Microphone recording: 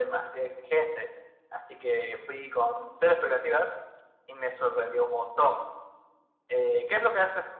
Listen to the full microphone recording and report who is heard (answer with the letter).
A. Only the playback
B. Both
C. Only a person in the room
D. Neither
A